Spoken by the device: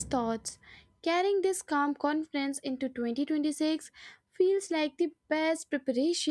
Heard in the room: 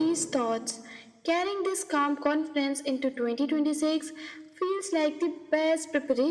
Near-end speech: none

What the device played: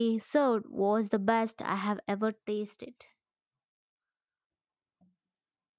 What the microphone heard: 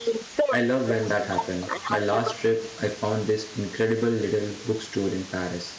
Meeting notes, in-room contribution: present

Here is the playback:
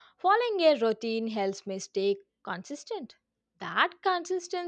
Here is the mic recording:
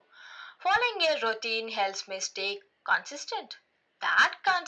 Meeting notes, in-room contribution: none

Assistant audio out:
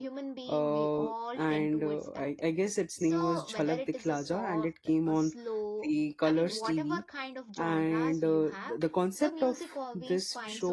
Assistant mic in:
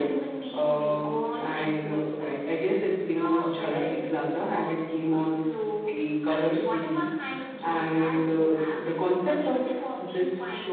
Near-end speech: none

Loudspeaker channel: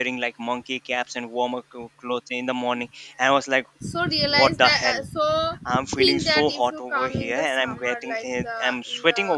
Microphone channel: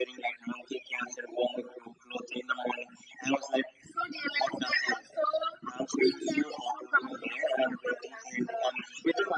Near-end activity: none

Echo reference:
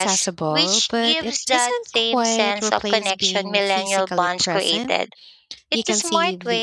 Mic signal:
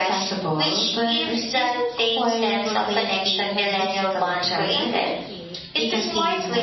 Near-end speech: present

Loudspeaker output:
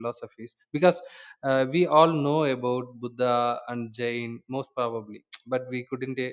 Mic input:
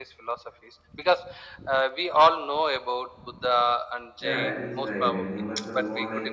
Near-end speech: present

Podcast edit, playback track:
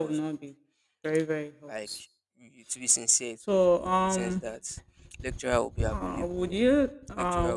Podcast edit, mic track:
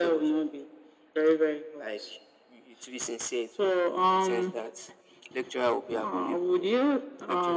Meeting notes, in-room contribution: none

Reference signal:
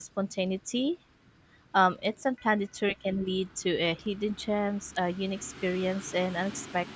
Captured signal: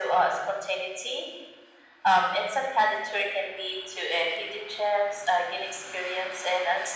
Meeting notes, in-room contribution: none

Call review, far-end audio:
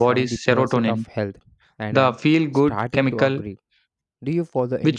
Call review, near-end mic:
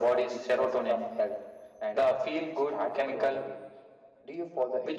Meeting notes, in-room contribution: none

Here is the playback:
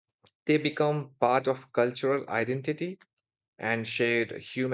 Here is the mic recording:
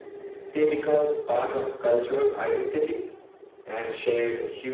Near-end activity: none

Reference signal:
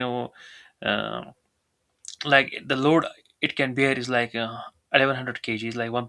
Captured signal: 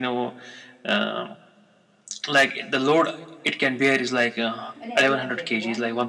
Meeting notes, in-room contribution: present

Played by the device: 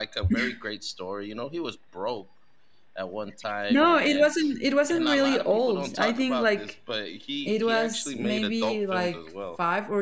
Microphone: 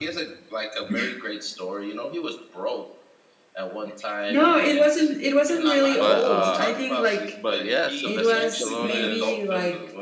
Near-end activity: present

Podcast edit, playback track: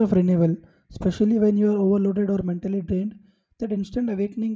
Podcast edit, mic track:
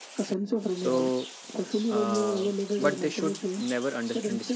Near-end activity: present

